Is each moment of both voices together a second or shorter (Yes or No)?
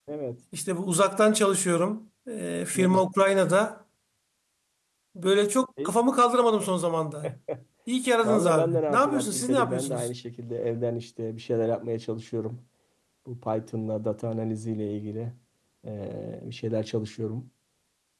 No